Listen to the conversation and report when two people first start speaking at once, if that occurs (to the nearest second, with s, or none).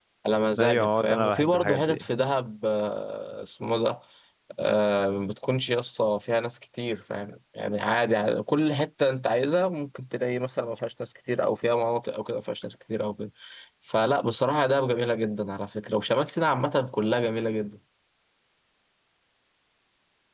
1 s